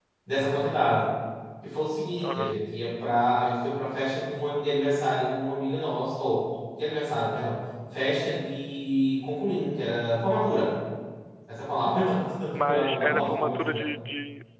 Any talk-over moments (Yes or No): Yes